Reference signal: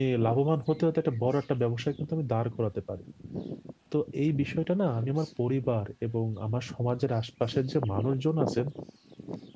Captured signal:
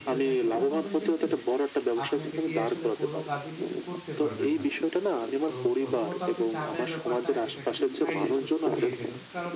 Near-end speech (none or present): present